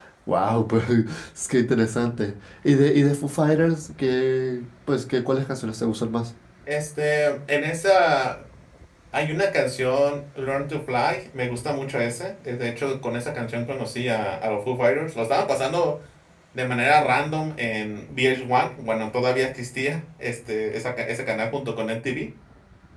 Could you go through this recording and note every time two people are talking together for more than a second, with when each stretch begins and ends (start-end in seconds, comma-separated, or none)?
none